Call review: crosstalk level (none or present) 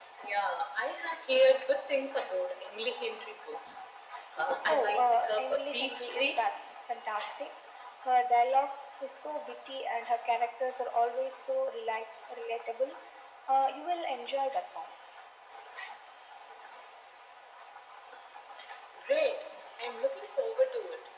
present